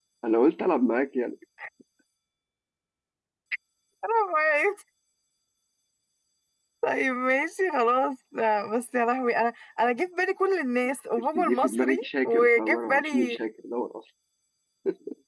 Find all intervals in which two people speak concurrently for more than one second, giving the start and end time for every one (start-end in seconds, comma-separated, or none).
11.3-13.4